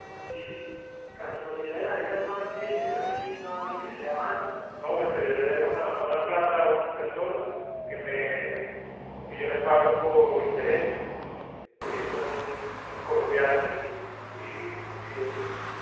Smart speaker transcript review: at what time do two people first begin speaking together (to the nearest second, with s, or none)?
5 s